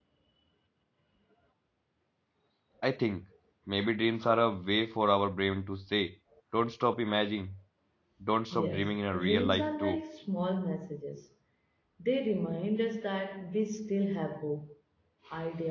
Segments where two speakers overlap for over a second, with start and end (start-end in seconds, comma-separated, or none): 8.5-10.0